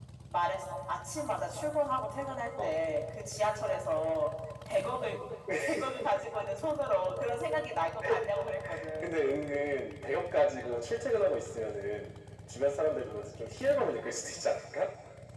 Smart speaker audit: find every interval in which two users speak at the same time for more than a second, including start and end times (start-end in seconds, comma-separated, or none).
none